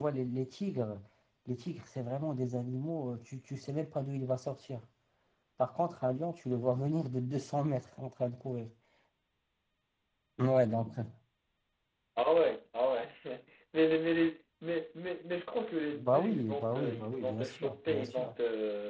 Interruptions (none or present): present